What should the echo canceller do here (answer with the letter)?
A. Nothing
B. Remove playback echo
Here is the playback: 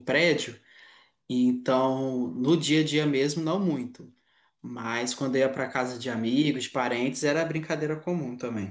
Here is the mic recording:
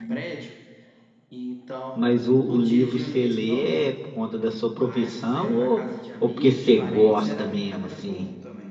B